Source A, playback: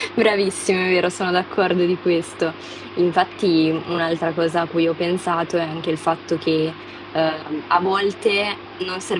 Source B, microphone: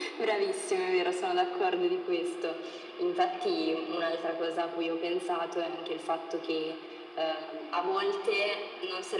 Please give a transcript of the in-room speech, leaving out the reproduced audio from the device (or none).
none